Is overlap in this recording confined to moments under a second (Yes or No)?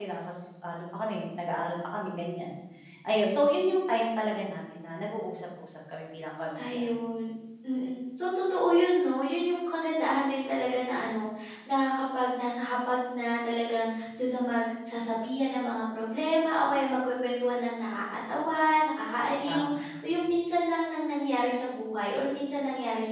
Yes